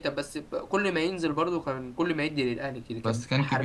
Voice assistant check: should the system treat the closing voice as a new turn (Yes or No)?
Yes